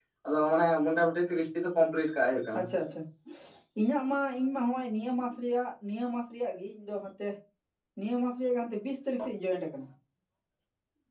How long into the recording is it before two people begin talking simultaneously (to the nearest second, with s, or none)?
none